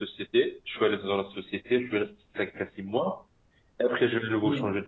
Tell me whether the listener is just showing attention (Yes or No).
Yes